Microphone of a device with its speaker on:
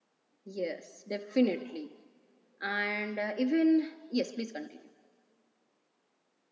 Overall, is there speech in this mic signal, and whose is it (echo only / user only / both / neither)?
user only